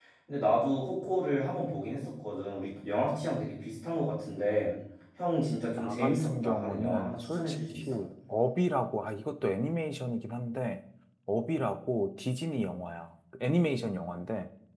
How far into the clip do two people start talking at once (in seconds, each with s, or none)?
5.8 s